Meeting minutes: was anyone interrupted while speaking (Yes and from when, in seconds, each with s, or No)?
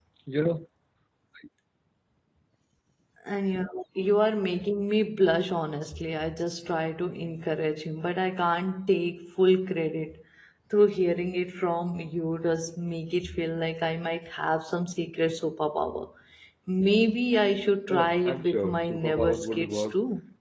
Yes, from 17.9 s